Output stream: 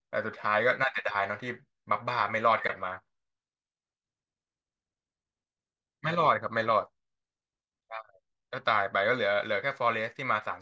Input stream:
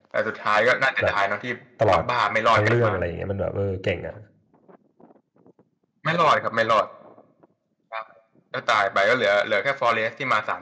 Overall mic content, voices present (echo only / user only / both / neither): both